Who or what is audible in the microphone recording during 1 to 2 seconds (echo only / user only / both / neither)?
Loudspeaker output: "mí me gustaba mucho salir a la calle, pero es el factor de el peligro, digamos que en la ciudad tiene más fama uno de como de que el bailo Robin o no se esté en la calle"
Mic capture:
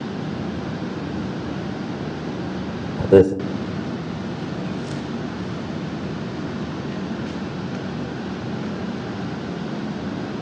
neither